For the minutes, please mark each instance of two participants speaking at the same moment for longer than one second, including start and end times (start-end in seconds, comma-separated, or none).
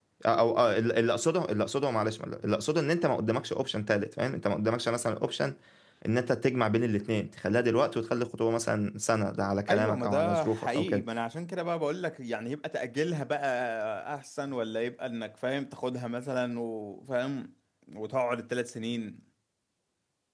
9.7-11.0